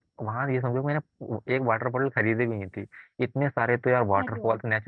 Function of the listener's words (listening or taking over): listening